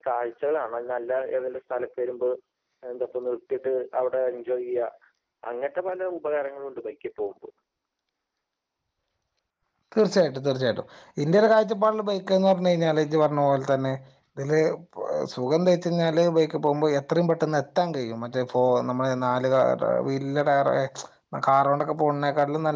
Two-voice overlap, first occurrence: none

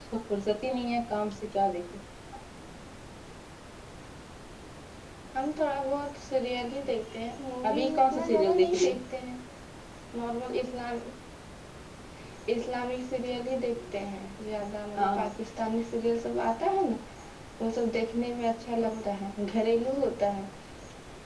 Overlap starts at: 7.7 s

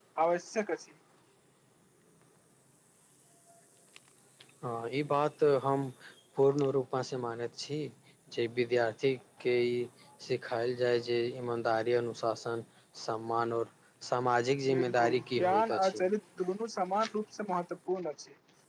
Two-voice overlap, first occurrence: 14.7 s

